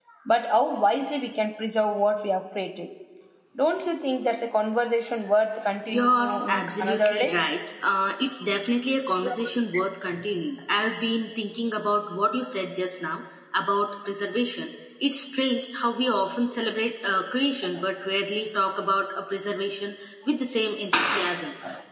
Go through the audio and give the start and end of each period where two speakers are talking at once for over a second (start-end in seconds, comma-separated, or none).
5.9-7.4